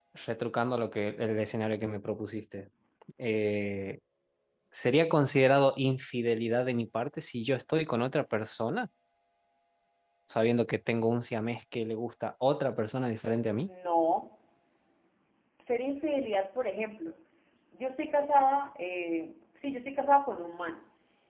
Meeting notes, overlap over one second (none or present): none